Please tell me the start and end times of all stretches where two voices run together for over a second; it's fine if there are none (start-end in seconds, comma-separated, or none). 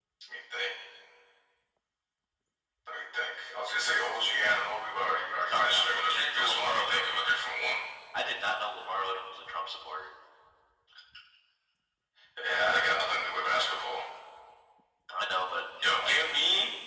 5.5-7.1